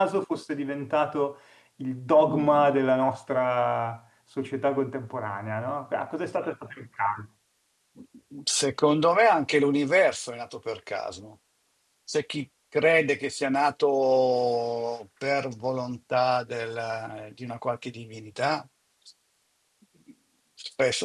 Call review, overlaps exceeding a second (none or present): none